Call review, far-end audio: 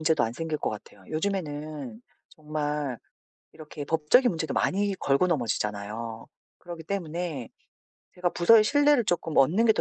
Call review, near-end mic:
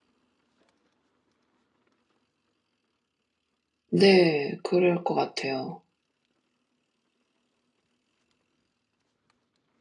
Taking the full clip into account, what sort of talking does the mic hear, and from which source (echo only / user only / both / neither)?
user only